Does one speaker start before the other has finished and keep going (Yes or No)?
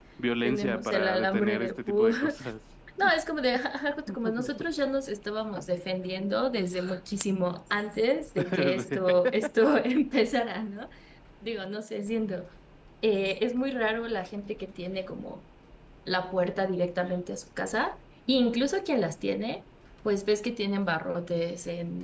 Yes